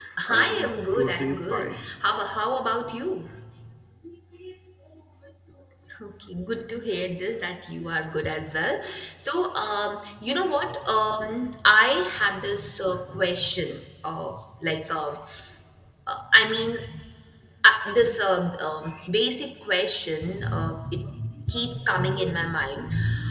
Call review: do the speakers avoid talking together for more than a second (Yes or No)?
No